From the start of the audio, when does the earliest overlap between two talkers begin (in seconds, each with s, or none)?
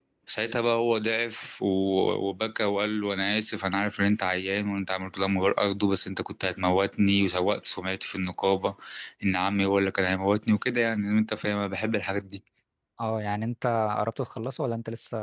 none